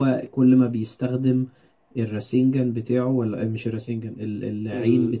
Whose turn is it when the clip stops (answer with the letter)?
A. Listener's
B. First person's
B